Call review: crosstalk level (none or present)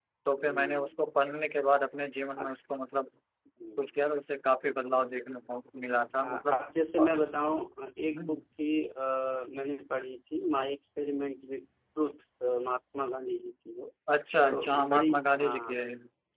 present